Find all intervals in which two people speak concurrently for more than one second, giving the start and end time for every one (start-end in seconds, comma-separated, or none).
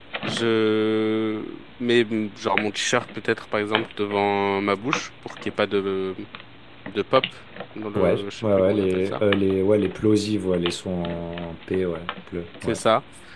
8.0-9.2